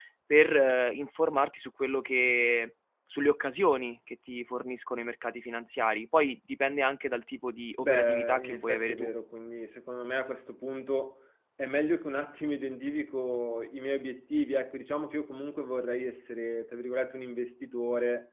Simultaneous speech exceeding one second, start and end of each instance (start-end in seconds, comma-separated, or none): 7.8-9.1